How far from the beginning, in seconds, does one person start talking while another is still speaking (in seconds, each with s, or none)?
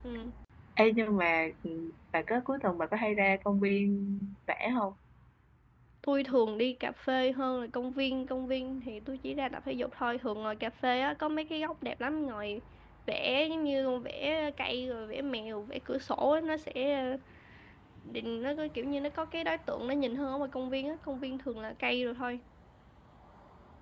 none